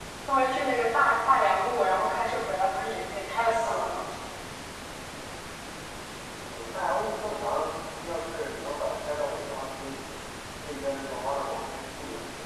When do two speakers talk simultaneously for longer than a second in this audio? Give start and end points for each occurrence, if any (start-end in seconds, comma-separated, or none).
none